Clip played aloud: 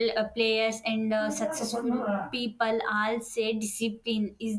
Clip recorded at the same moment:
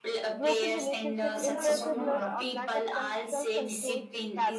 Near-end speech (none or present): present